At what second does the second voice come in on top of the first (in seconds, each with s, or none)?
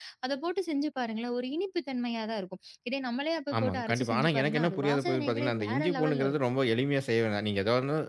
3.5 s